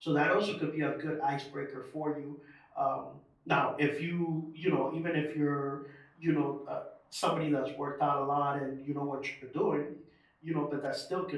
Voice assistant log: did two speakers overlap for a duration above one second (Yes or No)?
No